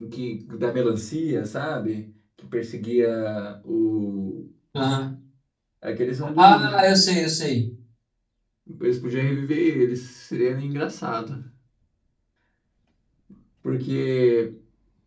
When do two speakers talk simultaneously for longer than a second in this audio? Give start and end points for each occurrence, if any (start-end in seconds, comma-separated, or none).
none